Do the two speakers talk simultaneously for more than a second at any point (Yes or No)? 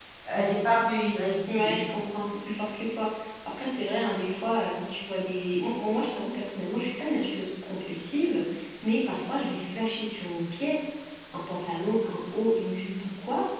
No